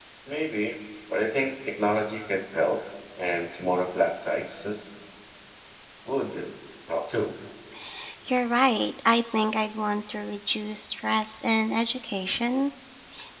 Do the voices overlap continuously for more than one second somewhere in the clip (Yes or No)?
No